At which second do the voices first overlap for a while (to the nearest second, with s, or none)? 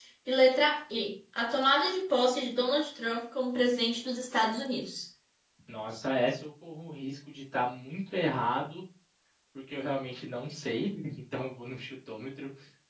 none